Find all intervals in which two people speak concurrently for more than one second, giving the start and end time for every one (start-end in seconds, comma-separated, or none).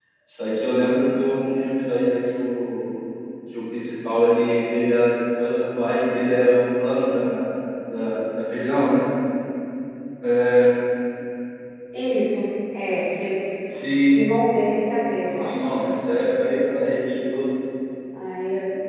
none